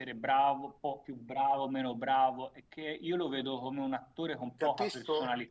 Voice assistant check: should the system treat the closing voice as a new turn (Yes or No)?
Yes